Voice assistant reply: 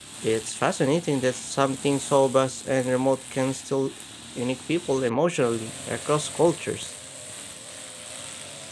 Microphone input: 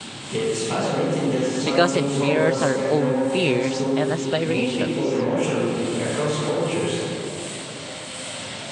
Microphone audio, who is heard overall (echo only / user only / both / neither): both